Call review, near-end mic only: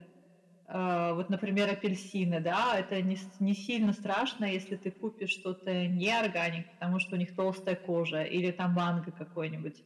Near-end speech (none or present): none